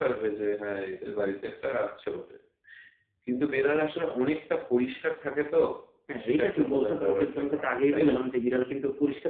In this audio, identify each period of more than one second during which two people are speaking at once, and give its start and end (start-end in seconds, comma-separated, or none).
6.2-8.1